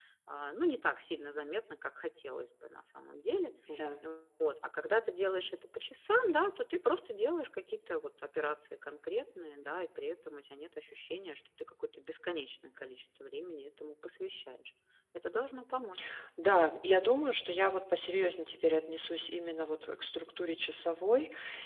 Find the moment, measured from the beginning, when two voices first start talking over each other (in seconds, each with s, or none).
none